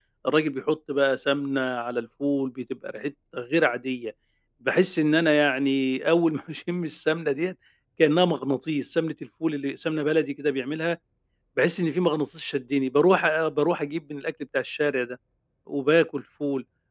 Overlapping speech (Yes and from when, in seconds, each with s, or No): No